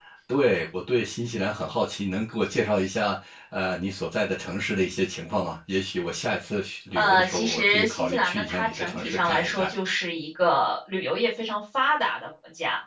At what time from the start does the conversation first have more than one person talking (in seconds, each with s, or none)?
7.0 s